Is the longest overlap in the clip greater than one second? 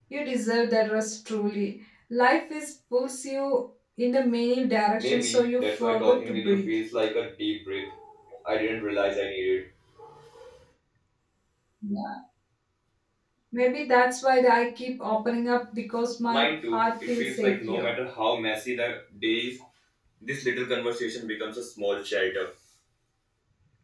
Yes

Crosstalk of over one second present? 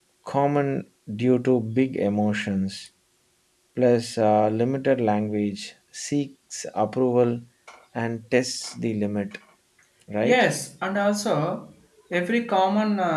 No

